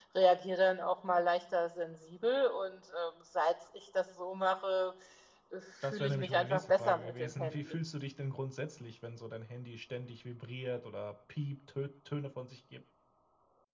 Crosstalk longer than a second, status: present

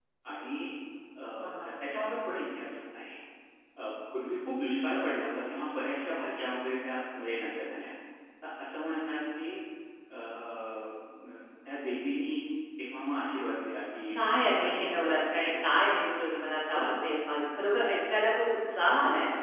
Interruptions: present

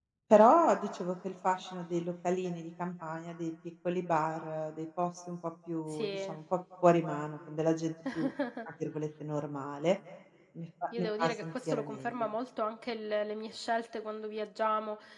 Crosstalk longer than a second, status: present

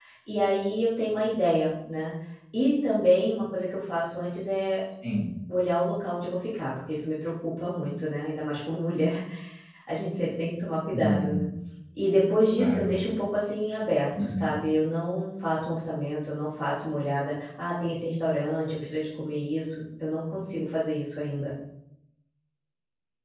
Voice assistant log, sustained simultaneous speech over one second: none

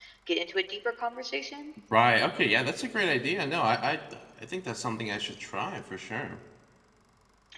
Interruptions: none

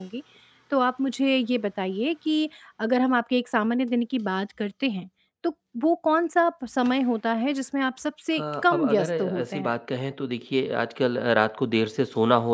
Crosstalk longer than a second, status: present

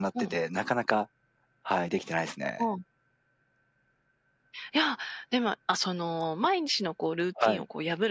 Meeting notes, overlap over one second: none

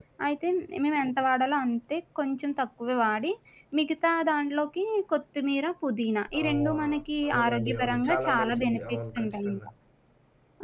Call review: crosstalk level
present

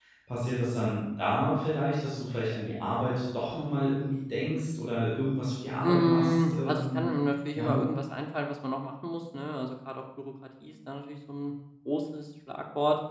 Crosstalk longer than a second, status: present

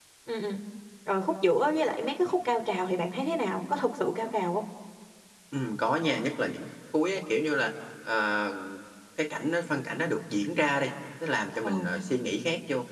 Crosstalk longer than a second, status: none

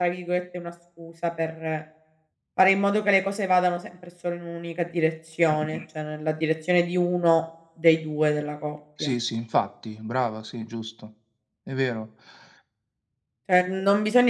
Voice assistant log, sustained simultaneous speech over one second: none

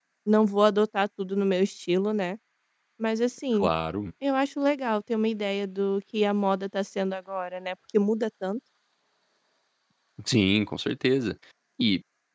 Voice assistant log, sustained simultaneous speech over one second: none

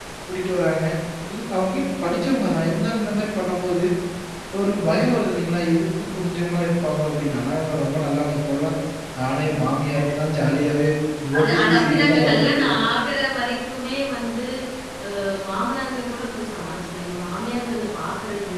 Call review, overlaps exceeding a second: present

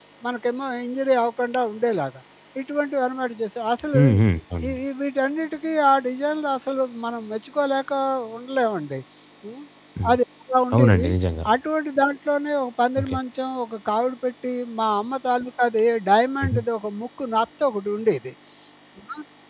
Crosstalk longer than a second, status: none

